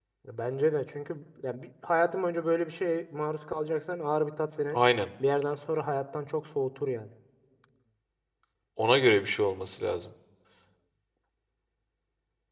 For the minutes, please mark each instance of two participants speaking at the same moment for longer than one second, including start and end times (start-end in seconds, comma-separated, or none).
none